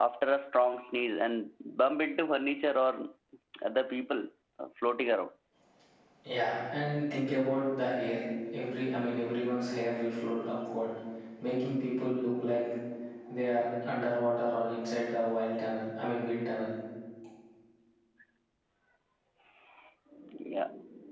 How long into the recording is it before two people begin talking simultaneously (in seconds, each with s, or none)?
none